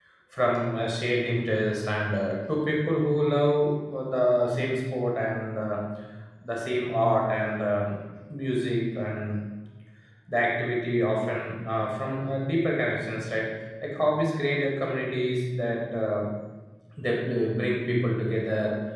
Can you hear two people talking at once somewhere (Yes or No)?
No